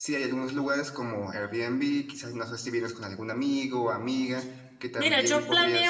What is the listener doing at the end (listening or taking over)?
taking over